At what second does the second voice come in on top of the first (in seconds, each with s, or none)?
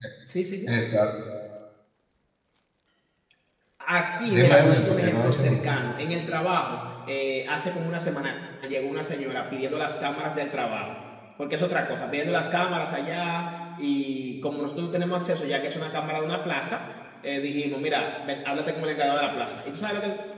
4.3 s